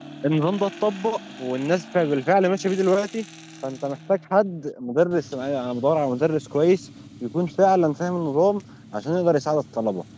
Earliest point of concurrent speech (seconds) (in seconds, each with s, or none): none